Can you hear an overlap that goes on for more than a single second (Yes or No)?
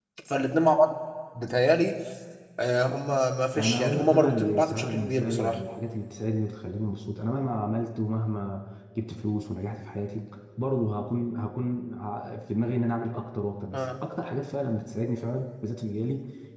Yes